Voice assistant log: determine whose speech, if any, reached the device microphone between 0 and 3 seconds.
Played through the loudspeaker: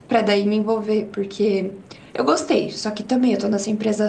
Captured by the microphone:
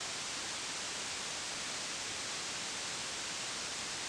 neither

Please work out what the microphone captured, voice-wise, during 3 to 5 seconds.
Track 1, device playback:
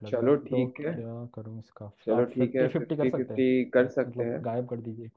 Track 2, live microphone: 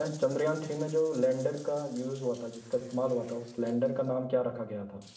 user only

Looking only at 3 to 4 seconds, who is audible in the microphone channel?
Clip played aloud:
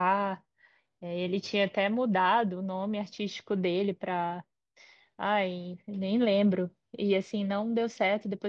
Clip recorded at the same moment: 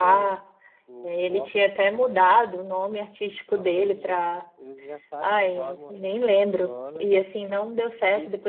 both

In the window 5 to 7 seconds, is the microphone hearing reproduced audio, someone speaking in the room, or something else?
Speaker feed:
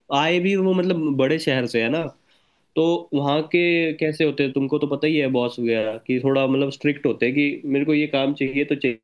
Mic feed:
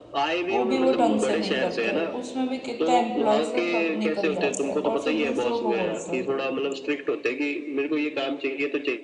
both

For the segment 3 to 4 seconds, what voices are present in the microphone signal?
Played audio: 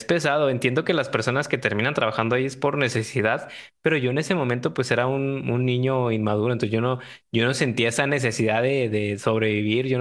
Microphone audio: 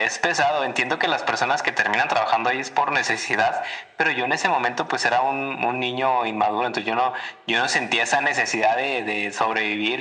echo only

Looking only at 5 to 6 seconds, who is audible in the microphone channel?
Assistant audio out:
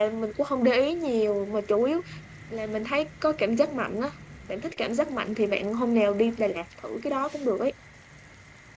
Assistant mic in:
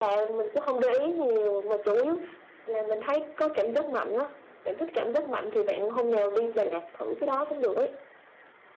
echo only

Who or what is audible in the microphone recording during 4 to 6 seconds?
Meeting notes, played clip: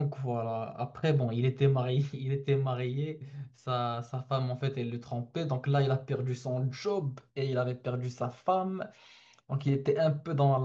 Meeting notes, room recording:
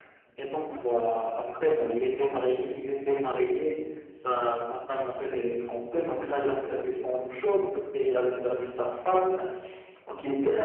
echo only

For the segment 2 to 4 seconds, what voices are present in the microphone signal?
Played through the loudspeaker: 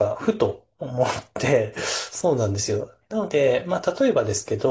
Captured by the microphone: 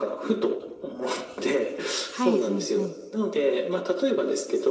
both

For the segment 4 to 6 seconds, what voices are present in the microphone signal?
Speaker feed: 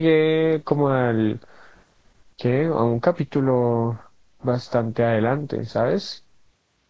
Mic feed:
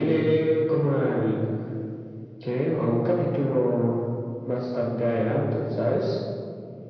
echo only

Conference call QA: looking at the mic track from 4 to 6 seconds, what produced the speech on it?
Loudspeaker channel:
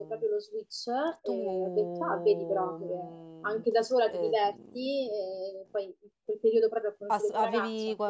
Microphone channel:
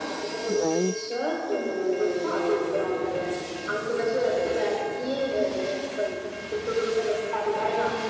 echo only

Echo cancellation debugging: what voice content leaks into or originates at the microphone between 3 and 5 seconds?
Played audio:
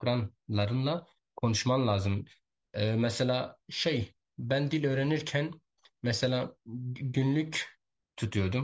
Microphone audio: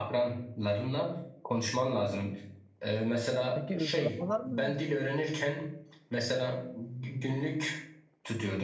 both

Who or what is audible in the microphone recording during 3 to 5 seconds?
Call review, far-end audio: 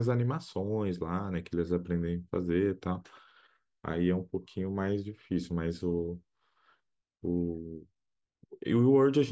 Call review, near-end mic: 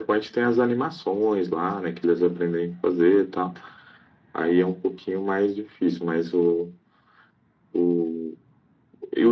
echo only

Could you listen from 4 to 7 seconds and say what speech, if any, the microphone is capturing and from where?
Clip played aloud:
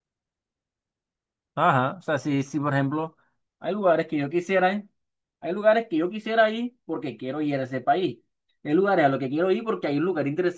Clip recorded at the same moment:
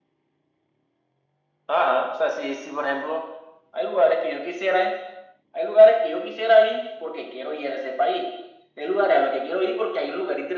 echo only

